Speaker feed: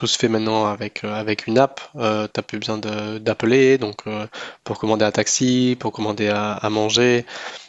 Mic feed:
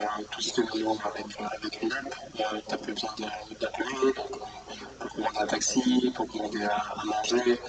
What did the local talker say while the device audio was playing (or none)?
none